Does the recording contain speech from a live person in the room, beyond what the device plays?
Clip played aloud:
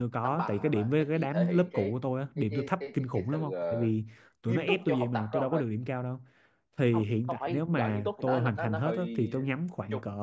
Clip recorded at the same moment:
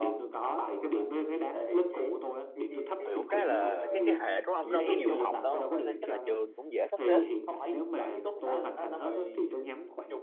Yes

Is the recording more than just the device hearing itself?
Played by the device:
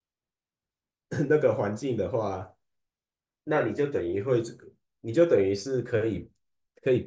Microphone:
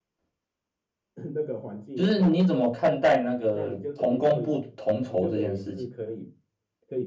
Yes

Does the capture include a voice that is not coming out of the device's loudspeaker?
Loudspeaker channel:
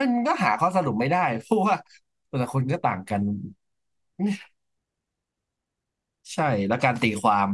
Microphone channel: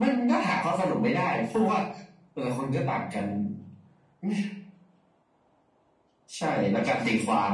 No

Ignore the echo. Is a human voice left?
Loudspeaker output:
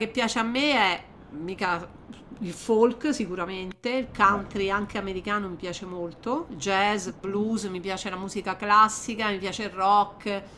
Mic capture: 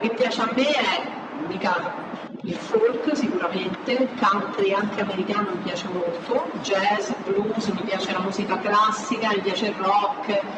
No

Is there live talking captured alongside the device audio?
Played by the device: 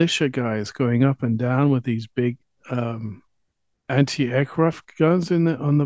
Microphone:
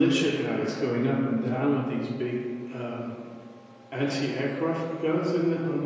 No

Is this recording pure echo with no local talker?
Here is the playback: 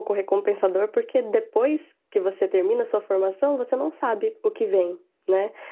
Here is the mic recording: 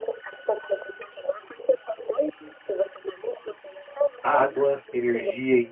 No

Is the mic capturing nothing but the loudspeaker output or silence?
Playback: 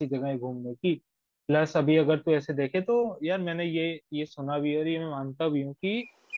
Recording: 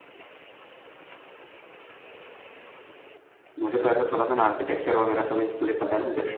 No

